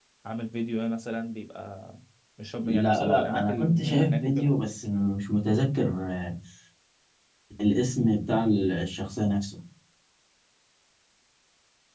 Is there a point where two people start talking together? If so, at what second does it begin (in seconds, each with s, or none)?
2.7 s